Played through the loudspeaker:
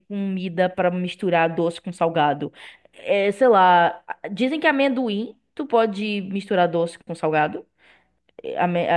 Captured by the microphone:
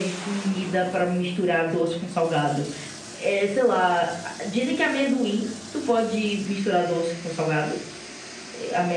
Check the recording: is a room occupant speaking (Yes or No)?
No